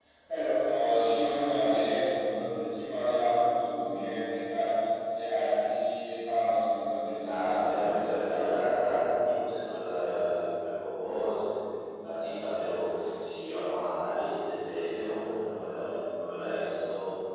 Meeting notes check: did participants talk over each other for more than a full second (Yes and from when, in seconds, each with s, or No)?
Yes, from 7.2 s